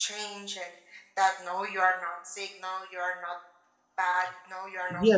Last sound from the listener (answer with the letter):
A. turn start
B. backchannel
A